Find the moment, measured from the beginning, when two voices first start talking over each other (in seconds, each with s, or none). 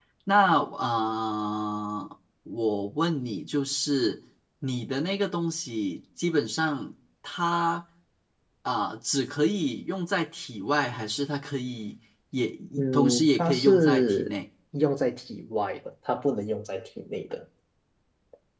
12.8 s